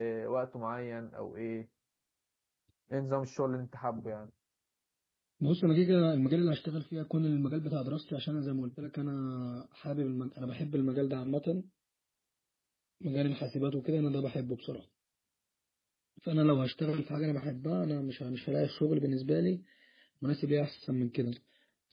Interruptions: none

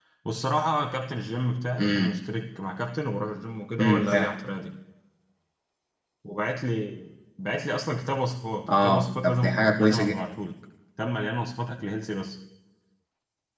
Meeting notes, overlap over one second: present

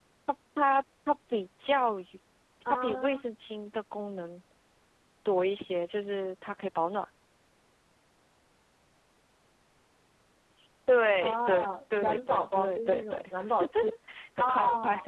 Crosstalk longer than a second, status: present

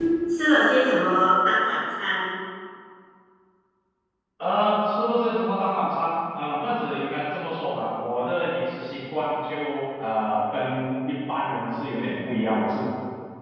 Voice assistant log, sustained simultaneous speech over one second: none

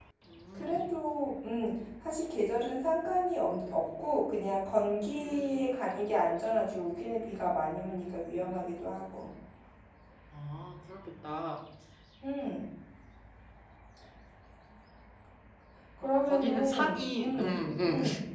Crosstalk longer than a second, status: present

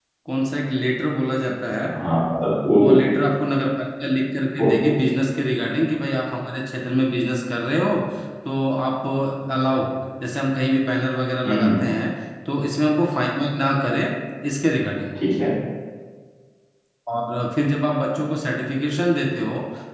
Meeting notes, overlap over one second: none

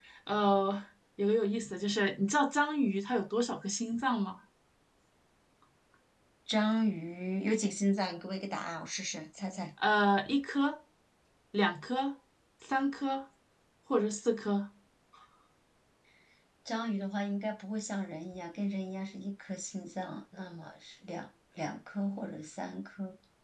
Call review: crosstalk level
none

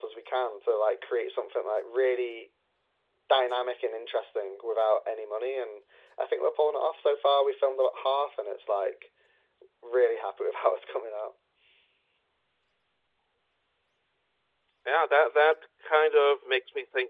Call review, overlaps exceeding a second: none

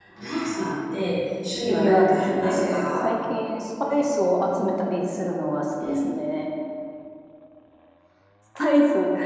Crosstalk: present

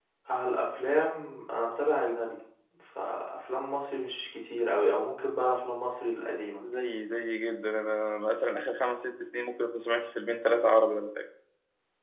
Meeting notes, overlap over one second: none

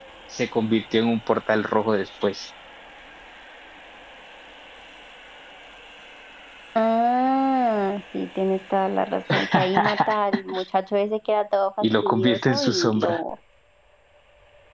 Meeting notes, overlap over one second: present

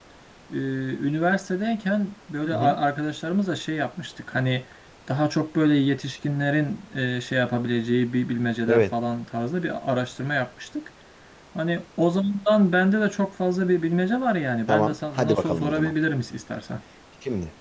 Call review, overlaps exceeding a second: present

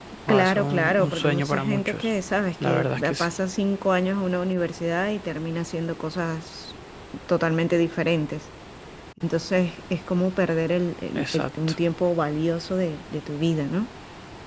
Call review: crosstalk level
present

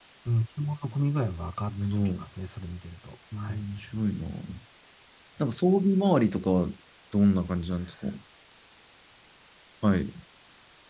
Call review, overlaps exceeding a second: none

